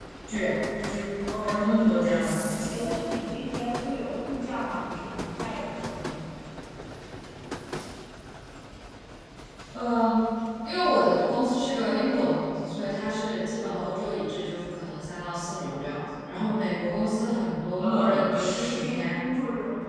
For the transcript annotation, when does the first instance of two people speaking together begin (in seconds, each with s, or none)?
1.3 s